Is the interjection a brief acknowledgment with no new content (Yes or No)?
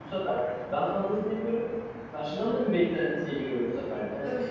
Yes